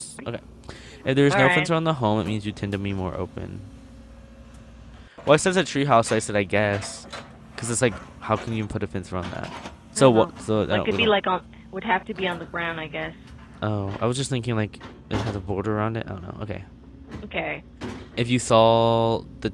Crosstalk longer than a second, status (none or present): none